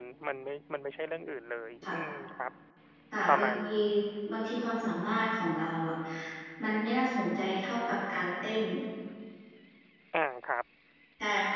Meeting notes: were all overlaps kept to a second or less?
Yes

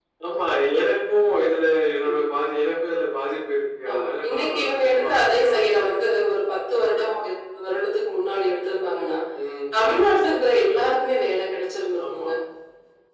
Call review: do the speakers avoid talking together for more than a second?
No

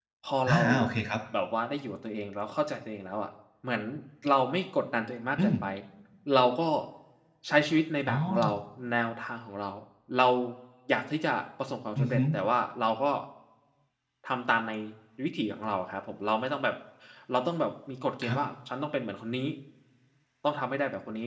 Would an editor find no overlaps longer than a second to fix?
Yes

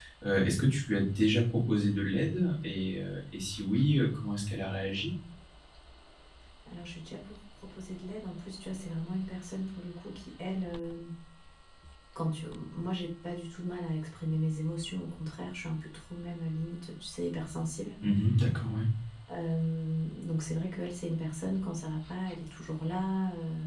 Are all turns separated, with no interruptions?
Yes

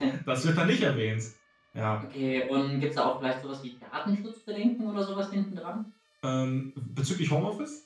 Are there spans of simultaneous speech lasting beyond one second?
No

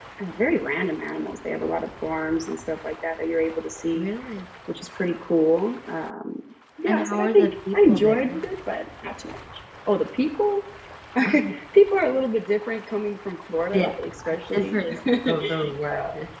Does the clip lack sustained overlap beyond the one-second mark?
No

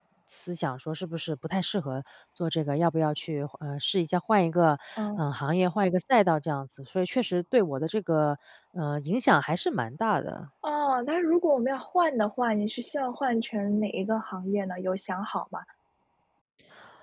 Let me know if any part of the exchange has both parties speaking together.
No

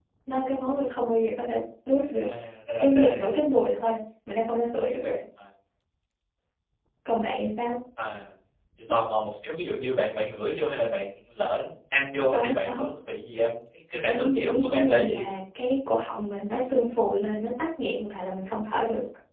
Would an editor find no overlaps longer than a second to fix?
No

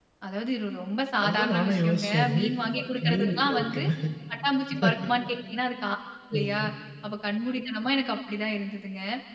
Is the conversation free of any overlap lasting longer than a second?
No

